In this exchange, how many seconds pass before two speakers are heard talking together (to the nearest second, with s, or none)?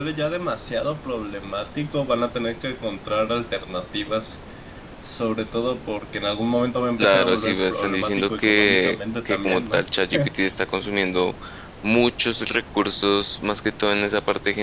7 s